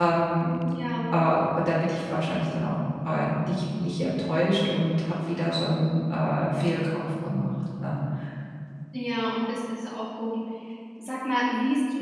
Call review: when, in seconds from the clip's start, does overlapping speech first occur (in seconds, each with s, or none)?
none